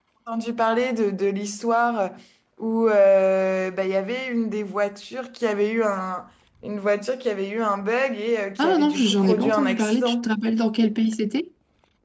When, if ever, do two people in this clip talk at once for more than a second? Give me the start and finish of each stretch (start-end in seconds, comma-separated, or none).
8.6-10.3